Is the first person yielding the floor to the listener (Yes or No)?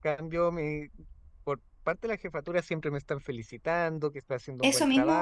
Yes